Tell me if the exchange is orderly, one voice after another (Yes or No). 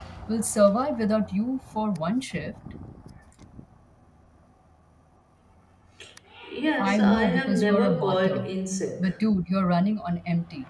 No